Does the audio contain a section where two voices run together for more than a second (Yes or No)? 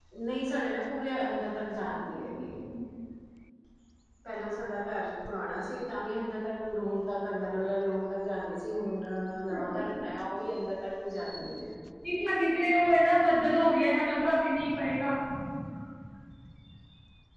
No